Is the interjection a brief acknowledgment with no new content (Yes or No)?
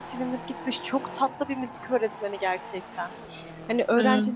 Yes